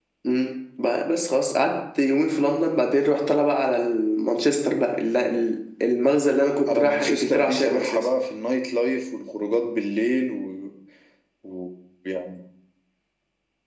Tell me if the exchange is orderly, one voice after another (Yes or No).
No